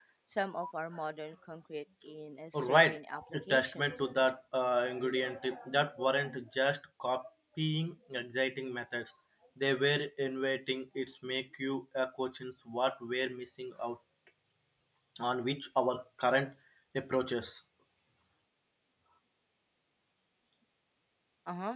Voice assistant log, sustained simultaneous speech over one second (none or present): present